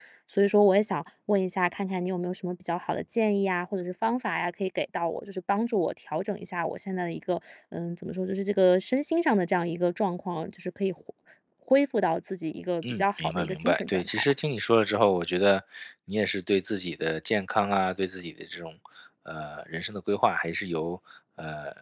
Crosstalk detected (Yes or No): Yes